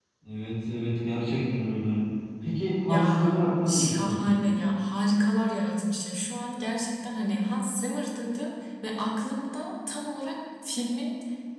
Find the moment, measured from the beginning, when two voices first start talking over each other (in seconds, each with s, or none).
2.9 s